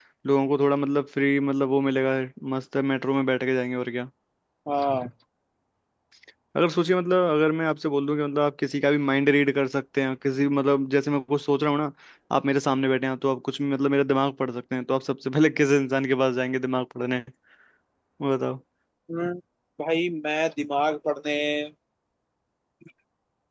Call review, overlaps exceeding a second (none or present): none